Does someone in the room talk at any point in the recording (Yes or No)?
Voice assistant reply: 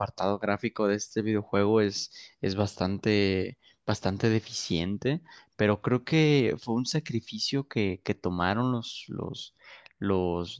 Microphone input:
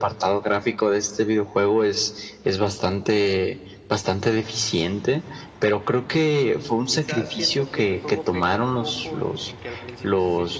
Yes